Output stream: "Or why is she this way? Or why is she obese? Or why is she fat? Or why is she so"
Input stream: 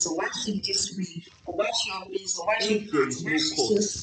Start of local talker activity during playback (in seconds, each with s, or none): 2.6 s